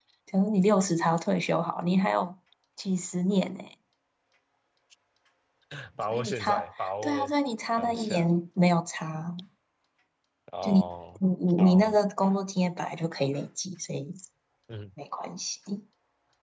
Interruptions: present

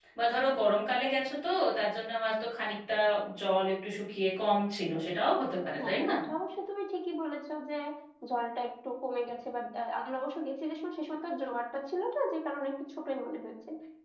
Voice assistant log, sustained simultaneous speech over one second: none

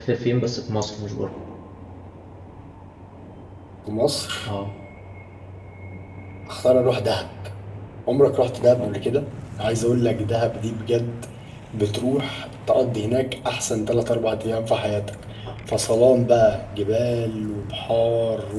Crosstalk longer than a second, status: none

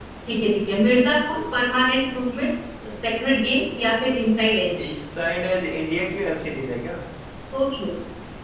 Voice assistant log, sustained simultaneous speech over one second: none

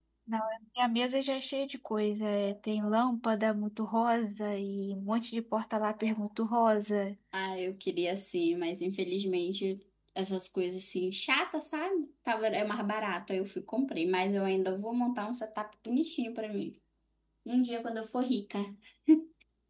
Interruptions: none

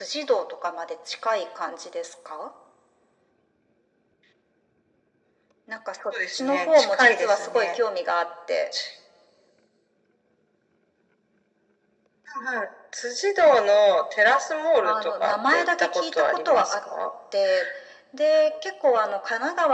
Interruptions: present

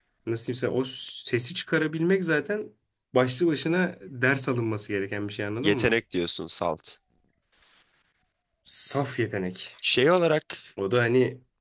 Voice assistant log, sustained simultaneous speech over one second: none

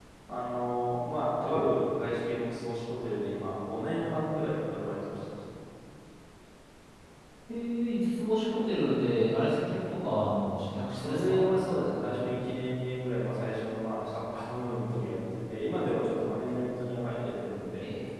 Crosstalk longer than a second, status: none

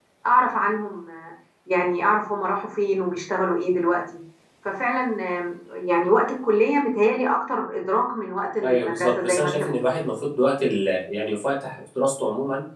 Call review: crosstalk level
present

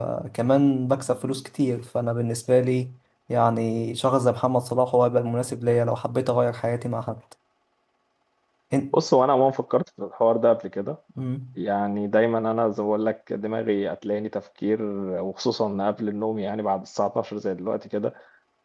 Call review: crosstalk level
none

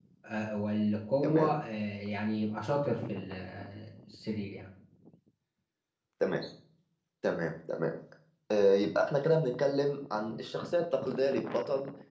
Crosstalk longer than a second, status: none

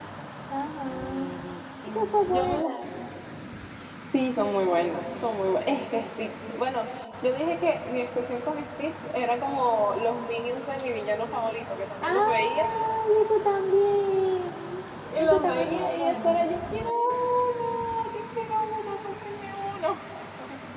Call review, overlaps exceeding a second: present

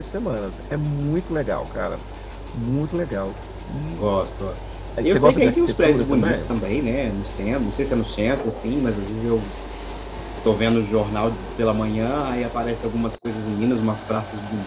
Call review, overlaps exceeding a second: present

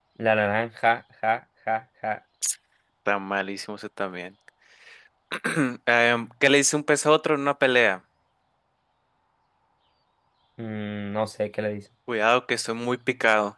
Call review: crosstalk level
none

